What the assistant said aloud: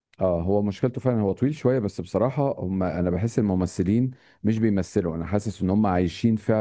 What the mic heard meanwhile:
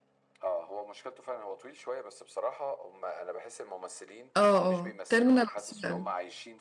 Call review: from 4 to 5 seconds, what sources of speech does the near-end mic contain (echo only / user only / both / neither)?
both